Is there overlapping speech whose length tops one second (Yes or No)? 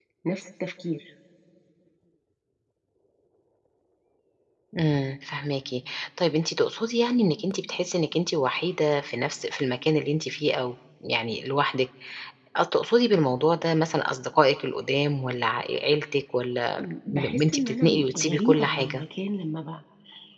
Yes